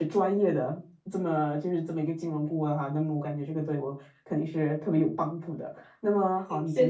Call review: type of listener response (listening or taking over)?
listening